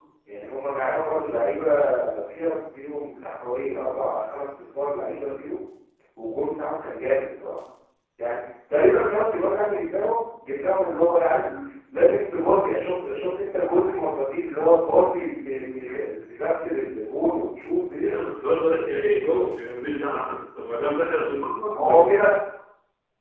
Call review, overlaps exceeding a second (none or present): none